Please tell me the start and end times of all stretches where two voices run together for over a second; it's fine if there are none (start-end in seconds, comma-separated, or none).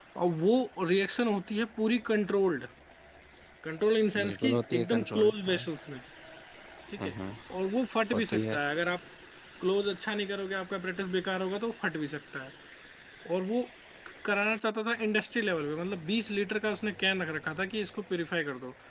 4.2-5.6